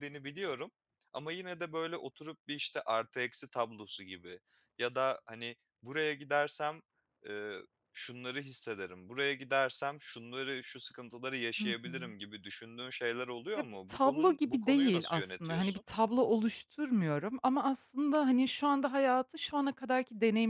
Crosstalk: present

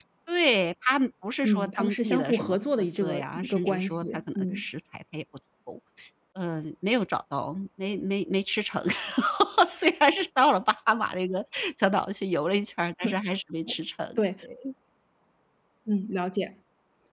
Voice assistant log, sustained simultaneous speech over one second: present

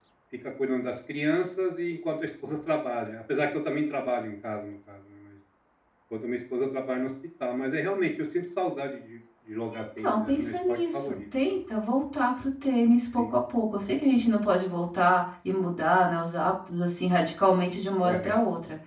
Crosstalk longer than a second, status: present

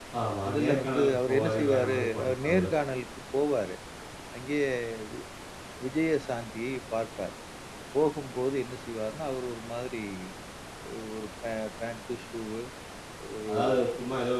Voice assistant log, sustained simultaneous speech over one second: present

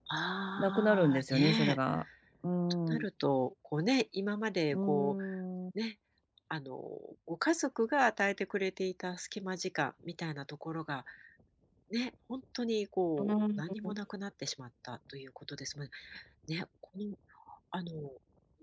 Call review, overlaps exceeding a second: present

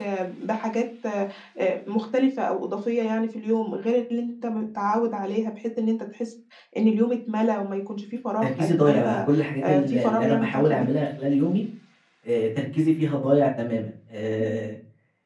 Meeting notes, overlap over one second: present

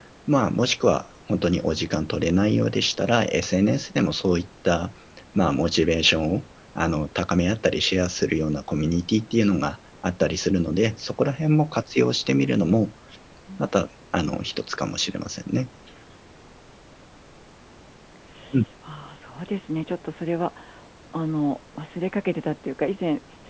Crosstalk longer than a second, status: none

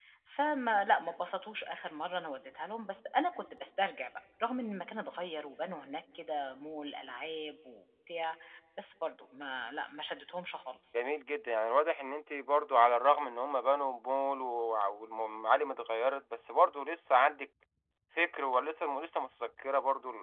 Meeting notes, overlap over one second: none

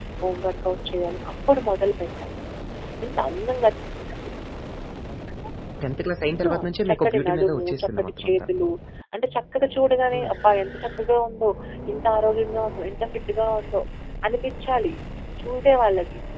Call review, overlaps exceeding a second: present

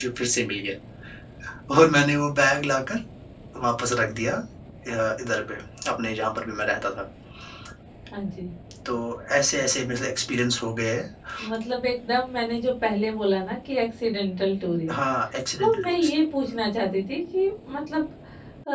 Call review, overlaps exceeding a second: none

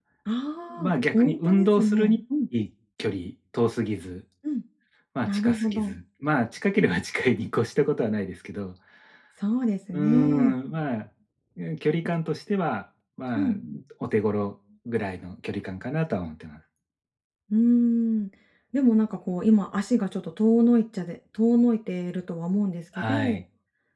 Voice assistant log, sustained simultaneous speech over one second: present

